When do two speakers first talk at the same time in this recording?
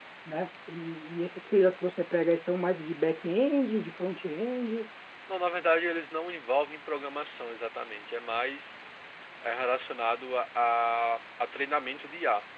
none

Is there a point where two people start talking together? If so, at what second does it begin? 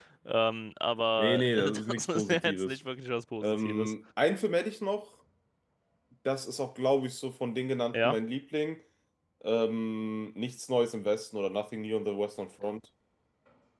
1.2 s

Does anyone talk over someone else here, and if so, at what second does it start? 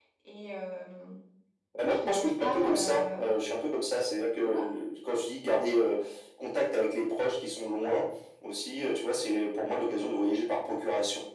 1.9 s

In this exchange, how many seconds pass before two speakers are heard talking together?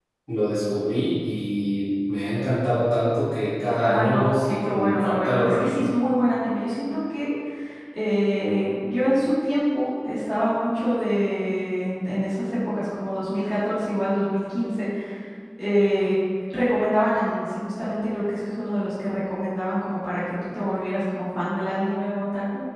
3.8 s

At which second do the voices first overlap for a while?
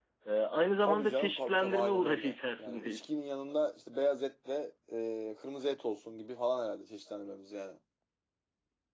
0.8 s

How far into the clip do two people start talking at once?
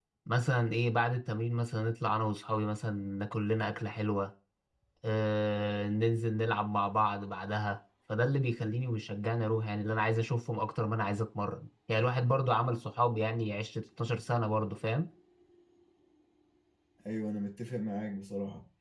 none

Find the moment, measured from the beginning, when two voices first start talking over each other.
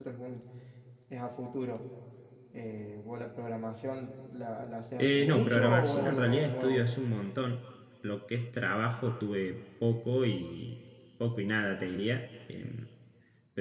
5.0 s

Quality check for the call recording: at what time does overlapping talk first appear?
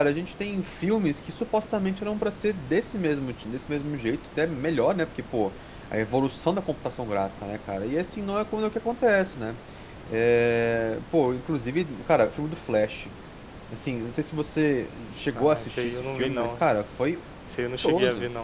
15.4 s

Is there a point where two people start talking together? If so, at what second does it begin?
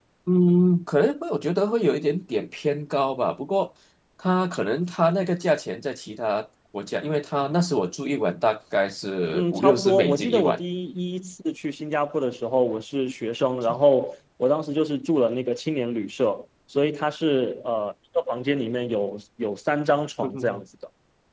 9.3 s

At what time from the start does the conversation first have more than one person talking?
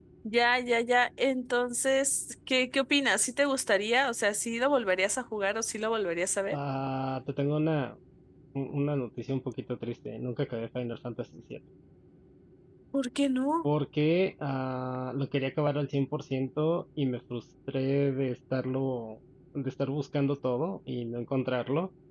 none

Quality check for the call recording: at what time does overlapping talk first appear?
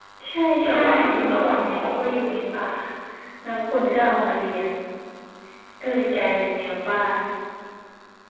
0.6 s

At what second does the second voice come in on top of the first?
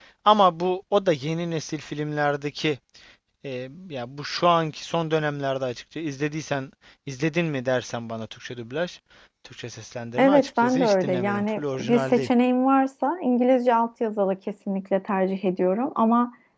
10.2 s

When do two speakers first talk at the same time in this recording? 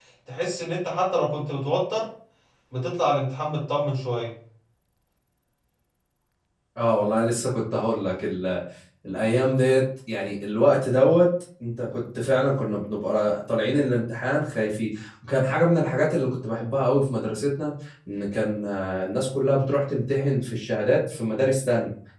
none

